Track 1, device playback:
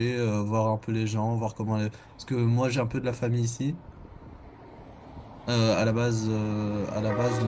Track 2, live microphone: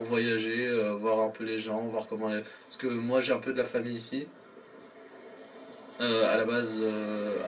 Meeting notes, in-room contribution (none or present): none